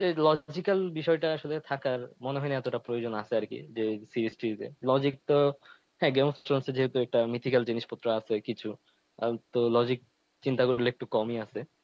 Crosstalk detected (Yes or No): No